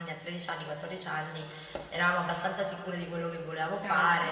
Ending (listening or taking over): listening